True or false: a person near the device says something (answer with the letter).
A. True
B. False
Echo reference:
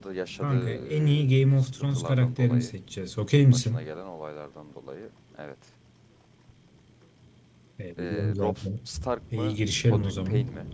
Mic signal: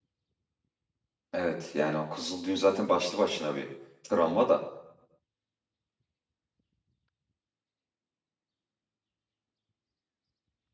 A